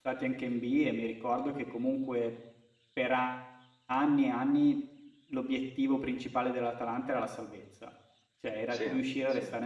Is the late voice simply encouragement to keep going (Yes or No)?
Yes